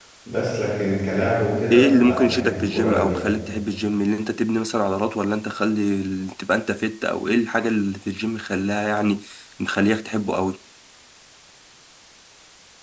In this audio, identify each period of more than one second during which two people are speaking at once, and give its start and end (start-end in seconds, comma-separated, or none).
1.7-3.3